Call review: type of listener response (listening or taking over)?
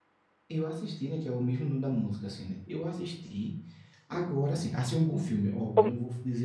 listening